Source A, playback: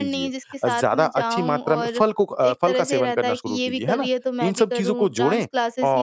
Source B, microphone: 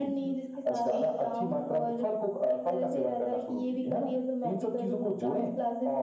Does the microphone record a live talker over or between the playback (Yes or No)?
Yes